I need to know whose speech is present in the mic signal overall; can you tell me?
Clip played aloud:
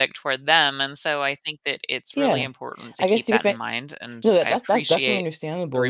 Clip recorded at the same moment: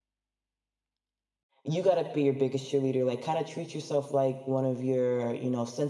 user only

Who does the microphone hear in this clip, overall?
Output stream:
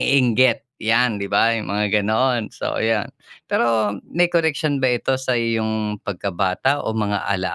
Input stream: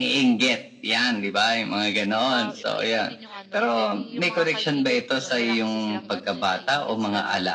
both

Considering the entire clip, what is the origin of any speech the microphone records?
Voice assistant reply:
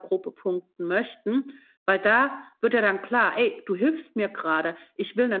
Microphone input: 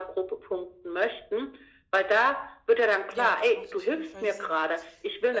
both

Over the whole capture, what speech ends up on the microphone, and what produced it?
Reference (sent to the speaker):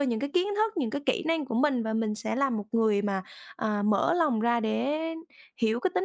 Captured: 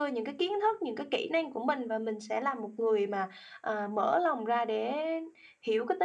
echo only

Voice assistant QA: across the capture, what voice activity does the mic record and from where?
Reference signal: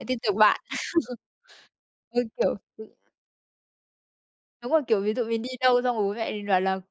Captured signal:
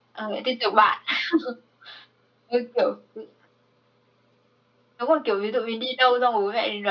echo only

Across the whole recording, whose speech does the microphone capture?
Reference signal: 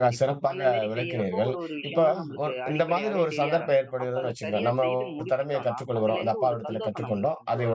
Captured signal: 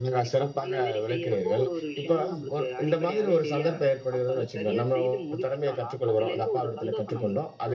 echo only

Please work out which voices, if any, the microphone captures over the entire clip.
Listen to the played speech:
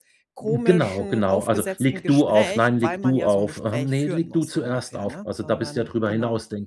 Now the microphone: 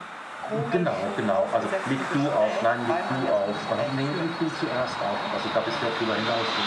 echo only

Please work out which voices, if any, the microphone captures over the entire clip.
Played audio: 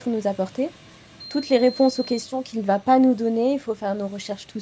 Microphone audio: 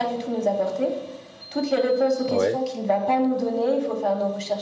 both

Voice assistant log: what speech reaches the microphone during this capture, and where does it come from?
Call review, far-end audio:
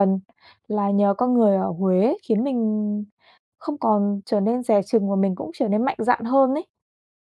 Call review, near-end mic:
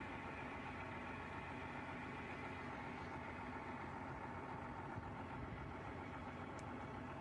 neither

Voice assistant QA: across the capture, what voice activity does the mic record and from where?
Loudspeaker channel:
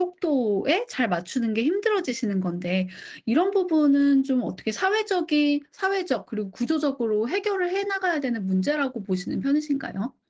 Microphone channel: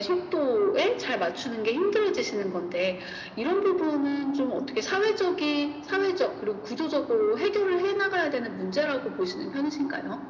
echo only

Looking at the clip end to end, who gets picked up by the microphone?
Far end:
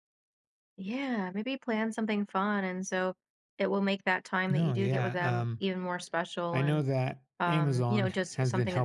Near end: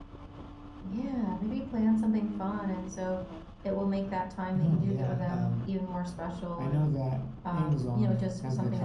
echo only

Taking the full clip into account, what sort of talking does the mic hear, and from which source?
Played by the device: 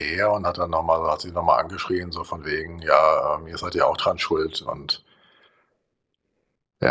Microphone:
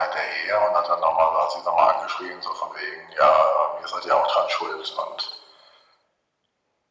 echo only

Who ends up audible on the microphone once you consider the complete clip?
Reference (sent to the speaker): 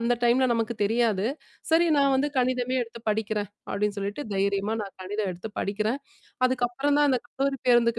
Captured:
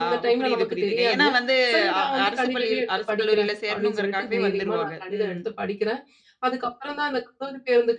both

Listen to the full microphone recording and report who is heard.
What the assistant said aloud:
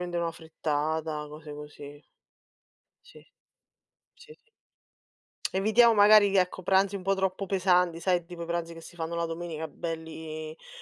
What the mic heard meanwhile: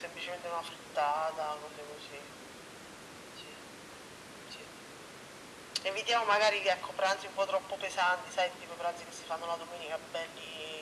echo only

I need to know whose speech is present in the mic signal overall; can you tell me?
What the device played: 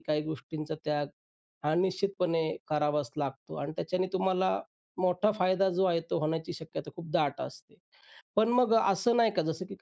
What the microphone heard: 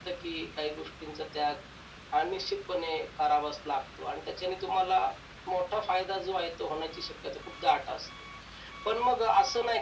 echo only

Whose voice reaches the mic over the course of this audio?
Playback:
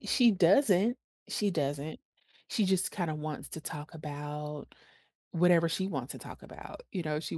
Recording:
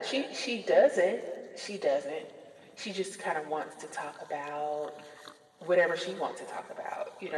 echo only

